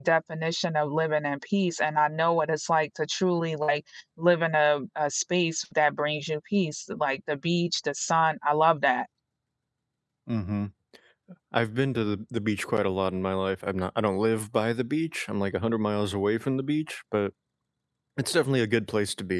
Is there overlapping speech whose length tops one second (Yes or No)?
No